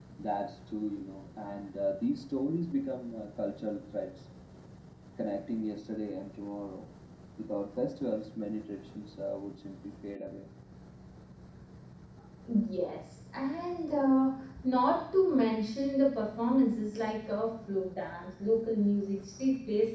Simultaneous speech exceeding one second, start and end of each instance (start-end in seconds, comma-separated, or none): none